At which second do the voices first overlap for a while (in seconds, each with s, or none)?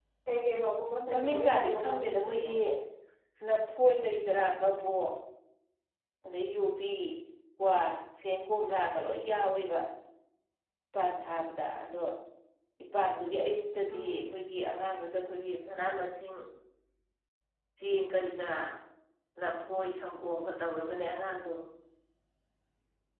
1.1 s